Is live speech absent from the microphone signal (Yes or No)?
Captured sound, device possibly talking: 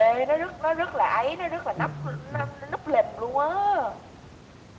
No